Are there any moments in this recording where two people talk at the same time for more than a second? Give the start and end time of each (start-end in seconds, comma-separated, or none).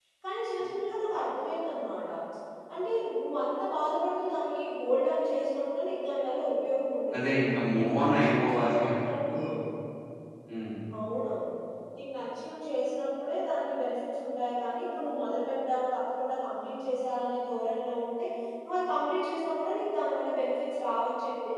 7.8-9.4